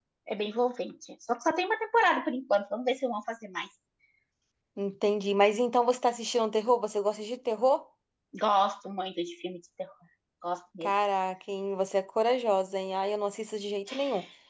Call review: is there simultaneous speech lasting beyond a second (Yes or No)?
No